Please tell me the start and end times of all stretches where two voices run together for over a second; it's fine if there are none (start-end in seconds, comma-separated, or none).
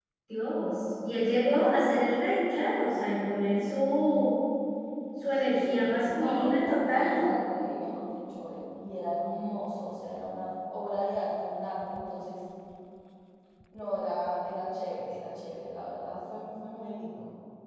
5.5-7.2